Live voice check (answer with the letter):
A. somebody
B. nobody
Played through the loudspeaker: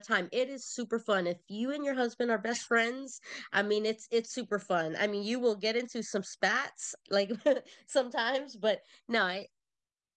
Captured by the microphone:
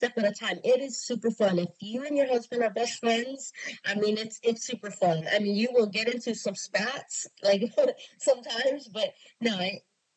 B